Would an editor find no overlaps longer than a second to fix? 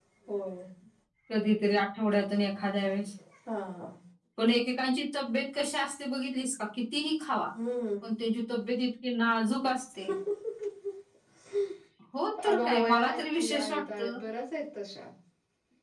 No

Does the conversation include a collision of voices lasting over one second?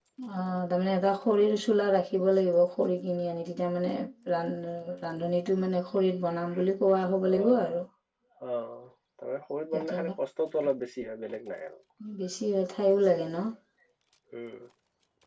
No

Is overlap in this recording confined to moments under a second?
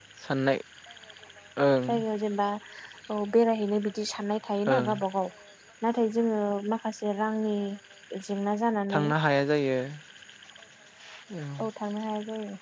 Yes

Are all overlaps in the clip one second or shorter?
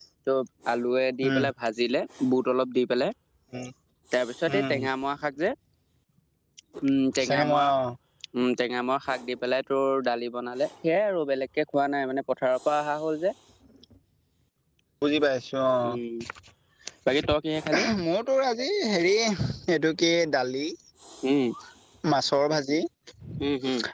Yes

